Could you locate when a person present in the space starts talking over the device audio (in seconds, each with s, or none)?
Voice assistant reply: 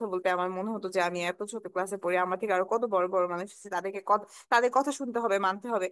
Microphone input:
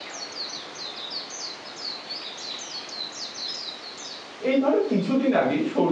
4.5 s